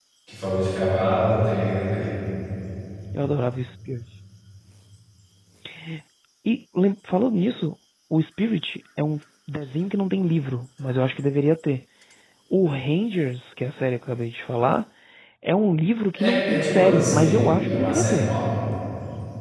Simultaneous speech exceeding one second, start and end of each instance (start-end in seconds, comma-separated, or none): 16.1-18.2